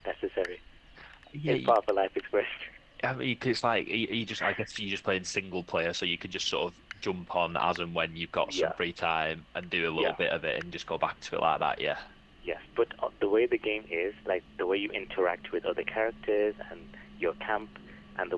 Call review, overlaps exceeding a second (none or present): none